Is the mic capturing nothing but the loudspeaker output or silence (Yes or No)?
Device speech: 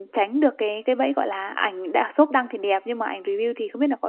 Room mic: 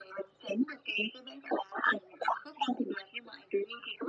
Yes